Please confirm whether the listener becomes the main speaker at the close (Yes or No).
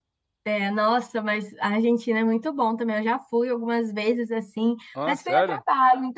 No